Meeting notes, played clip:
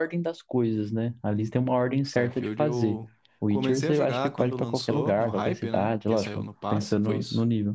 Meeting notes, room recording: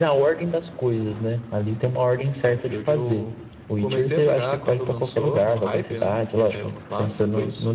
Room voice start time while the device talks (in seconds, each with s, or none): none